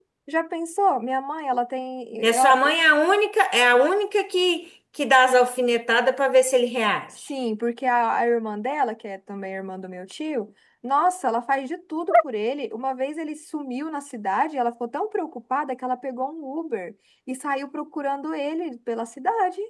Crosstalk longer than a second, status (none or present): none